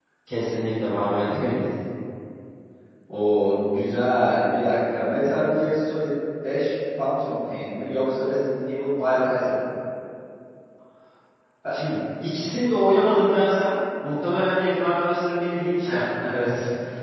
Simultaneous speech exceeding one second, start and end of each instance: none

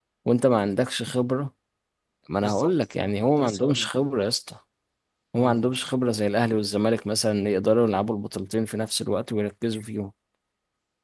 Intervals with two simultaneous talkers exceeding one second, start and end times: 2.4-3.8

